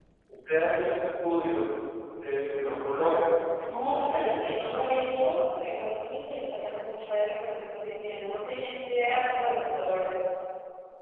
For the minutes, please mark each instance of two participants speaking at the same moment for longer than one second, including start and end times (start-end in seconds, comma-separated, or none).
3.6-5.0